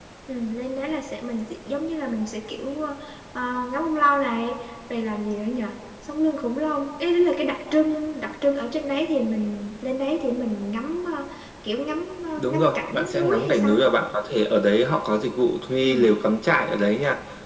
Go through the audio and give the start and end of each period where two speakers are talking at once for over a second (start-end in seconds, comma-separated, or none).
12.4-13.8